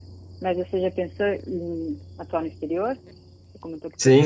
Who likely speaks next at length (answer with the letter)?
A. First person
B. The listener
B